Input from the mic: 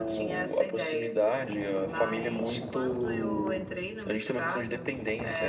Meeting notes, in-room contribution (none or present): none